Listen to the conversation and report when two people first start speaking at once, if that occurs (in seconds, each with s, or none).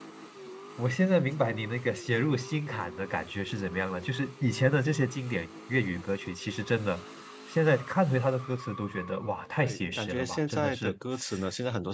9.6 s